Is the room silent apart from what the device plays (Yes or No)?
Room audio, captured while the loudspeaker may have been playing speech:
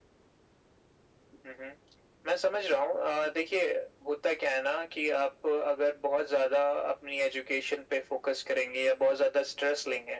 Yes